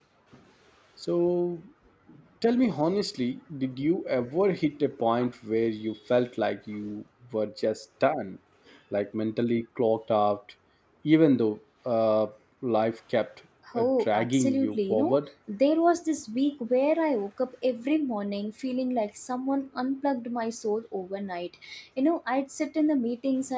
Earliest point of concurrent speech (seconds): 13.7 s

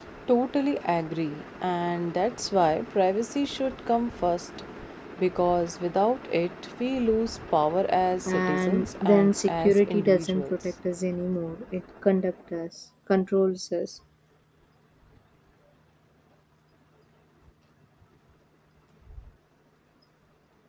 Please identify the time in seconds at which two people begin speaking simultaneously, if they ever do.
8.3 s

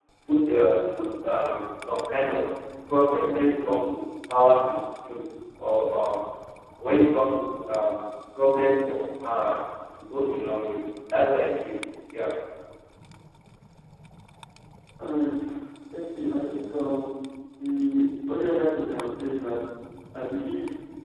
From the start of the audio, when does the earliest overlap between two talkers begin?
none

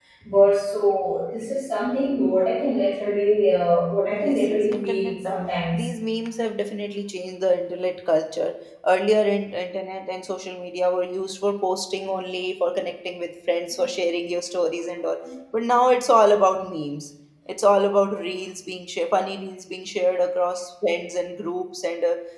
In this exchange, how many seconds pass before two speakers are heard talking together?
4.1 s

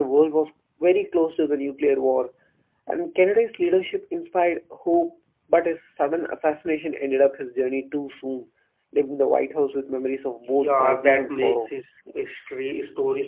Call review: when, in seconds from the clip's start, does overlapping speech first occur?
10.5 s

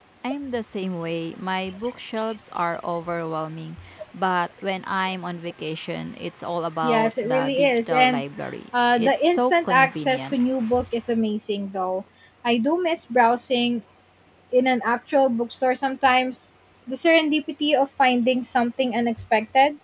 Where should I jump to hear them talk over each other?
6.8 s

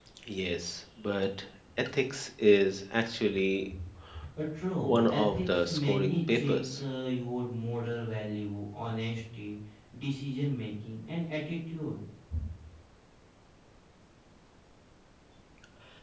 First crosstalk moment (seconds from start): 4.8 s

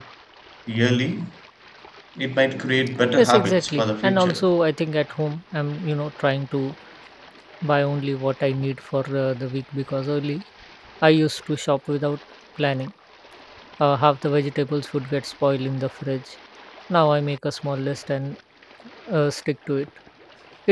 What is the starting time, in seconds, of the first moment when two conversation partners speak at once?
3.2 s

